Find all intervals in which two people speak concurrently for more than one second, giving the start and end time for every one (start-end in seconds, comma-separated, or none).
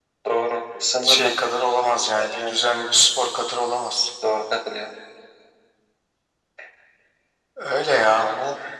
none